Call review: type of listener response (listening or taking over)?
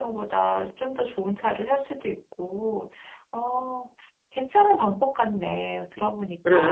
taking over